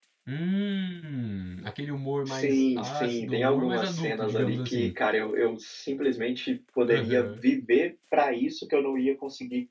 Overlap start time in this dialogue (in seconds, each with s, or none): 2.3 s